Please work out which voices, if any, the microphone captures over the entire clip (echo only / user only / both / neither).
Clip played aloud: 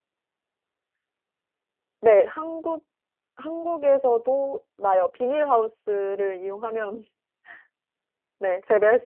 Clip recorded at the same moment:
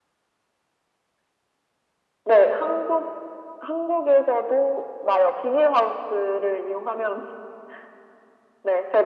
echo only